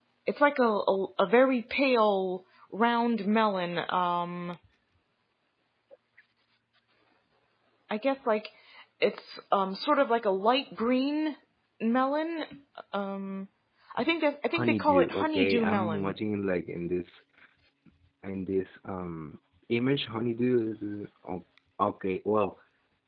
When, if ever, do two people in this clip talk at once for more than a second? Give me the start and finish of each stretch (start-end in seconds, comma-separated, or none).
14.5-16.1